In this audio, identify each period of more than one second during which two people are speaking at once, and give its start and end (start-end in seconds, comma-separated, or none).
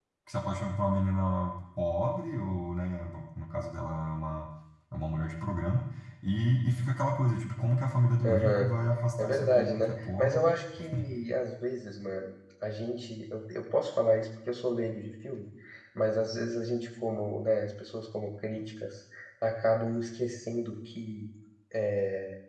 9.2-10.5